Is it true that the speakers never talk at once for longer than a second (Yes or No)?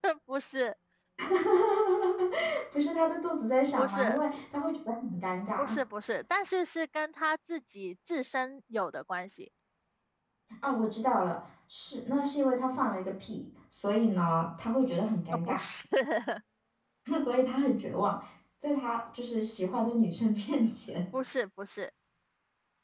Yes